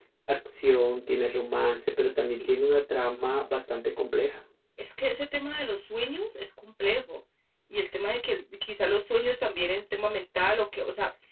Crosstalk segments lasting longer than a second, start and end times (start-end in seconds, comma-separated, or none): none